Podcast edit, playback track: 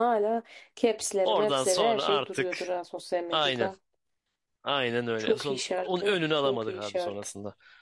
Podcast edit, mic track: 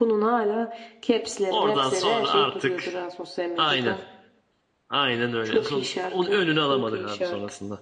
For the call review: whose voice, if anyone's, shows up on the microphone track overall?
echo only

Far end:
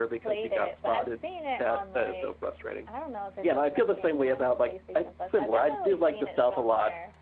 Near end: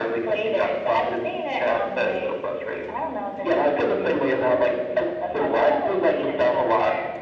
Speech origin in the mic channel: echo only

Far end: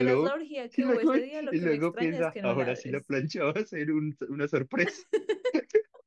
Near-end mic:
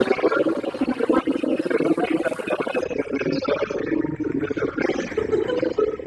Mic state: echo only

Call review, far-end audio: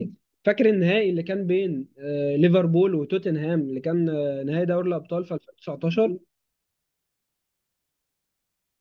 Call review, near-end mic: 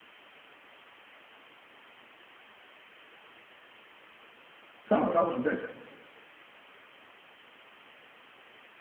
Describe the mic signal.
user only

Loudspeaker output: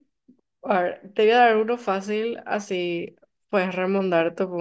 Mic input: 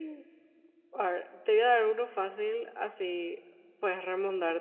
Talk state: echo only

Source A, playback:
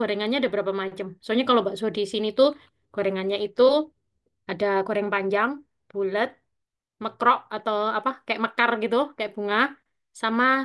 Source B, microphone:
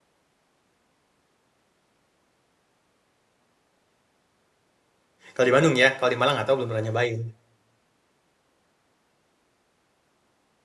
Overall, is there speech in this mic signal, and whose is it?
user only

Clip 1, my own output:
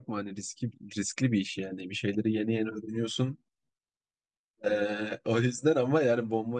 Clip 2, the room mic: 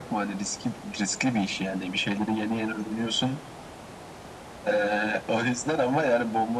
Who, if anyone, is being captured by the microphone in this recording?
echo only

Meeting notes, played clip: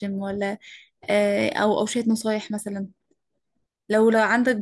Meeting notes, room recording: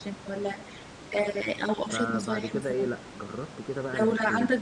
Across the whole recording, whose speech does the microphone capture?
both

